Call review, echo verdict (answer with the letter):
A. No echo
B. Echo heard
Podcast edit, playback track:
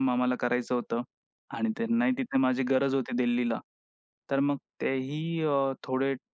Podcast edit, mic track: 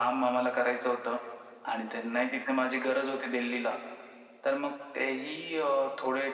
B